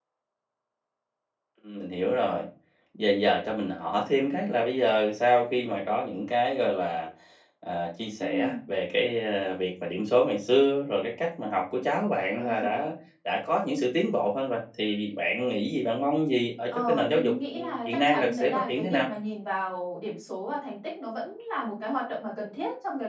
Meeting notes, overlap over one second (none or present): present